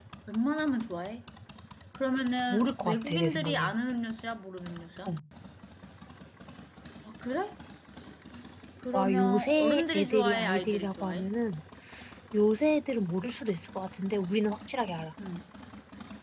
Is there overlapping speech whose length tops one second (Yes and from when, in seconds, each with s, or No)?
Yes, from 2.5 s